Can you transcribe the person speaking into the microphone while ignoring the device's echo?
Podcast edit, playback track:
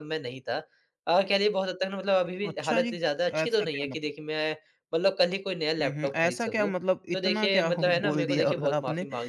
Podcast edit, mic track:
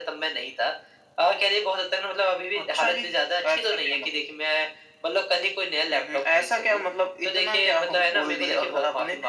none

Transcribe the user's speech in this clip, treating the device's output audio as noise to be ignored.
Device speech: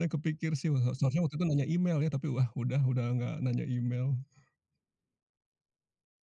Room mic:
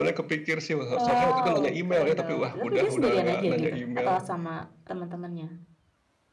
Wow, keren dong. Tapi dia sendirian aja gitu? Atau sama teman-temannya?

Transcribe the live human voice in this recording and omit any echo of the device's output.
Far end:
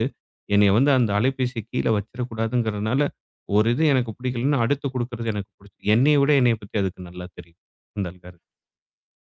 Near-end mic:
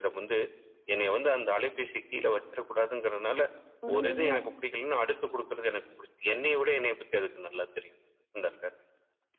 ஒருவேள

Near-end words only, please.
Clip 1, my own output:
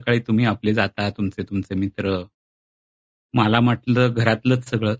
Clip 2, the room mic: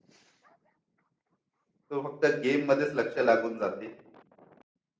तो फक्त गेममध्येच लक्ष लागून जाते.

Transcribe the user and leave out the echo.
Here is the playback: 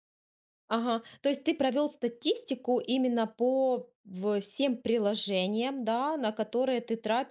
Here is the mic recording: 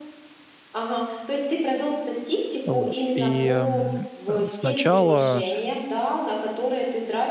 Вот. И, м, э, сначала

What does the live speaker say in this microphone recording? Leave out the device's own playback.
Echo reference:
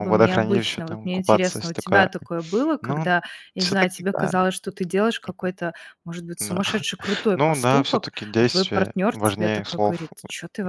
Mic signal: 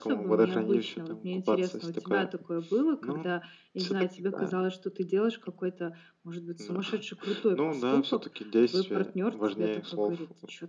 none

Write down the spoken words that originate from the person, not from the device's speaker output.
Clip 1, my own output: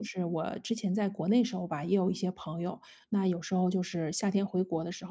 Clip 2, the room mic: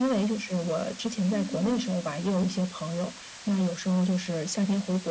嗯。

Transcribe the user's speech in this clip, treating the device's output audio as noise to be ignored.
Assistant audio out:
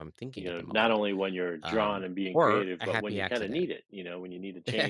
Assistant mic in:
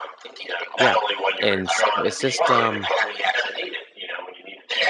yeah? And so it's just um,

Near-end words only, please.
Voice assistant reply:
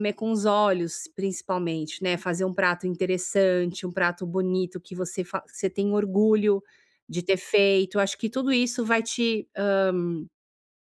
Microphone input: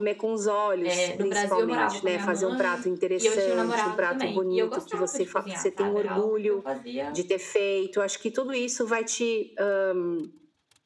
Eh, no Brasil eu morava com a minha mãe e eu tinha um namorado também, e eu gostava de cozinhar, sabe, era algo que eu fazia

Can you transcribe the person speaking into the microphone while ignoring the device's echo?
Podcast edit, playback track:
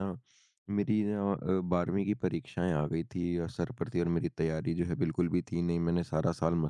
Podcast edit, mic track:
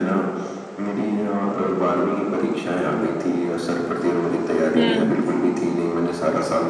हुँ।

